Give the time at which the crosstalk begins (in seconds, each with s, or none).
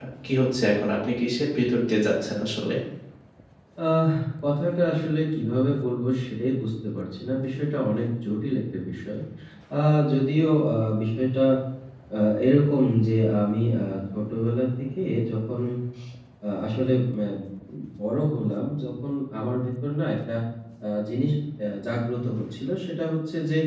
none